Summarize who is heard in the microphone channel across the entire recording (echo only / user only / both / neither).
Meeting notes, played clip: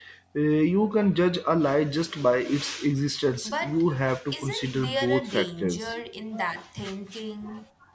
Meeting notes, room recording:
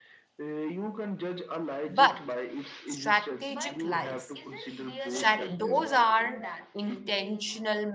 both